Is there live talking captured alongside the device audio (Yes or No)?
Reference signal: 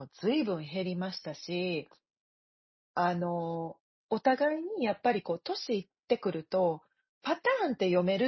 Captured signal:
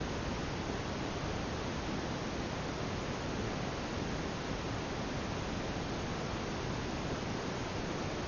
No